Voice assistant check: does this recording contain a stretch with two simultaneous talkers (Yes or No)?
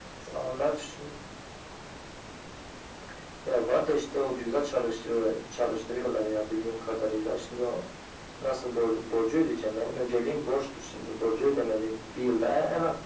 No